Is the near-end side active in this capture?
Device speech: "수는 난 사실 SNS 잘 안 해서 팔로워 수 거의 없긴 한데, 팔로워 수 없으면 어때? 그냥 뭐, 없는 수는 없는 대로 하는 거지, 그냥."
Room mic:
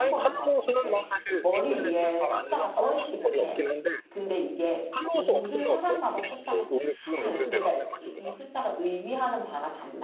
Yes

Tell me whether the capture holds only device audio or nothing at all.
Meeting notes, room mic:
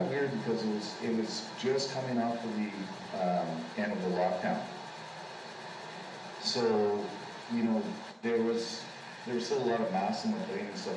Yes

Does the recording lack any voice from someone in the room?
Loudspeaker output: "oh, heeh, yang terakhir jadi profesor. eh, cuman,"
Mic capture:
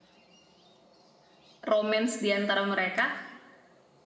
No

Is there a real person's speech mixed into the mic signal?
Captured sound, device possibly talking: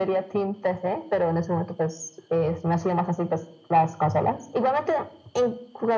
No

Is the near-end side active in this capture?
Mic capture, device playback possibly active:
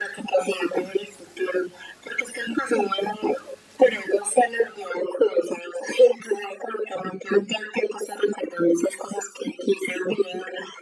No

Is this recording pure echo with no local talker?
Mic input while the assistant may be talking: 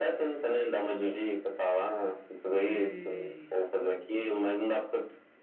No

